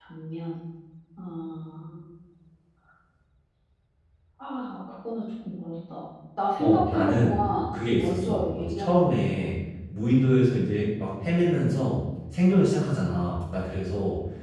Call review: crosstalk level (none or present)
present